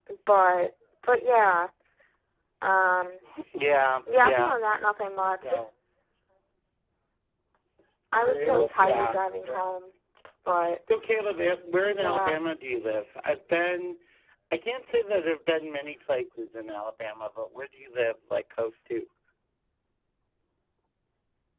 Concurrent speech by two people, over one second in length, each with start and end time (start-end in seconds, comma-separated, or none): 8.2-9.6